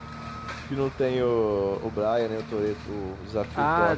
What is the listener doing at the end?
taking over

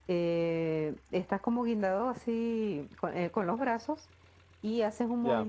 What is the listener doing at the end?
listening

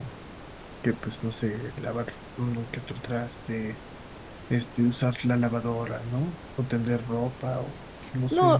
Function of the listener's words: taking over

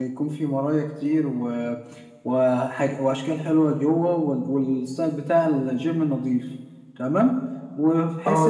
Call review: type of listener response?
listening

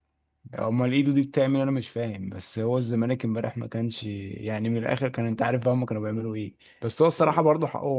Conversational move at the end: listening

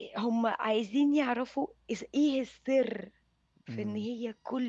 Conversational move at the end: listening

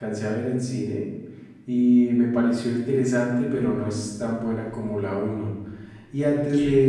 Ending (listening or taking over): listening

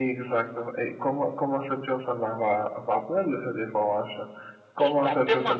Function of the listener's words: listening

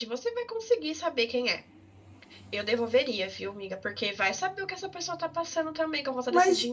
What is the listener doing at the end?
taking over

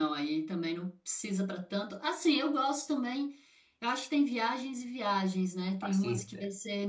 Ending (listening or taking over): listening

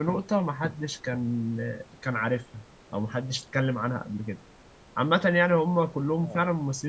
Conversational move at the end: listening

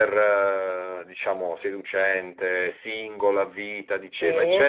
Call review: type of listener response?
listening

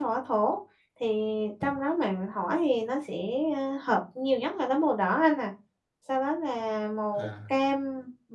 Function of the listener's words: listening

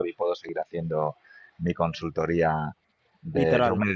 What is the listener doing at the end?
listening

